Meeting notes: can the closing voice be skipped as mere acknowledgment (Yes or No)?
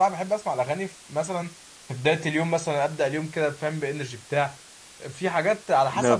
Yes